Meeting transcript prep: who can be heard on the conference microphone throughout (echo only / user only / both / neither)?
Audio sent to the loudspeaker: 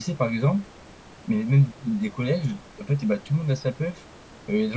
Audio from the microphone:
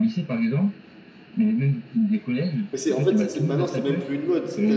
both